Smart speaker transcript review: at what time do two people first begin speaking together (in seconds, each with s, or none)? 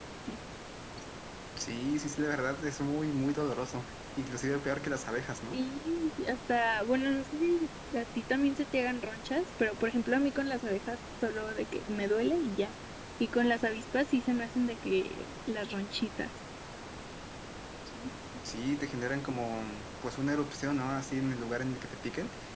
none